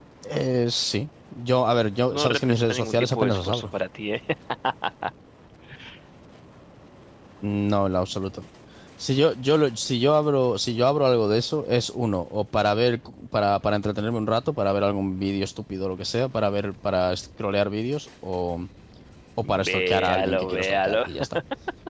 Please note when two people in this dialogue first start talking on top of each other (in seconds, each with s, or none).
2.1 s